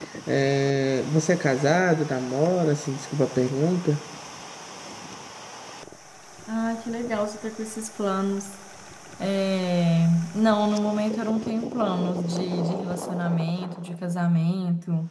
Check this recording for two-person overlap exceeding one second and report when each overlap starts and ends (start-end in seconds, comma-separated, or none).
none